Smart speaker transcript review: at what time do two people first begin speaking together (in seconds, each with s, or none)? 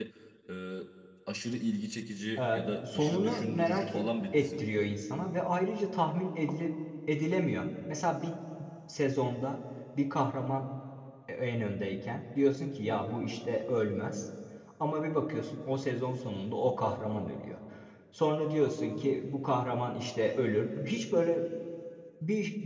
2.4 s